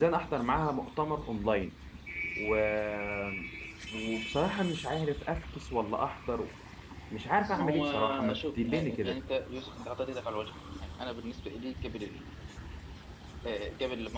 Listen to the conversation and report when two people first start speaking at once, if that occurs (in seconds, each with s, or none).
7.6 s